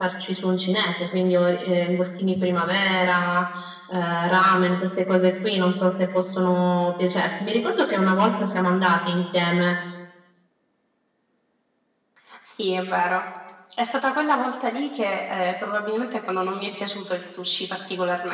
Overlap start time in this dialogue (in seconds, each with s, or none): none